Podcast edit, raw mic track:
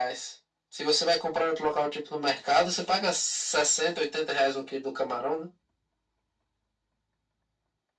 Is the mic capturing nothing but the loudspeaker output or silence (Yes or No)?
Yes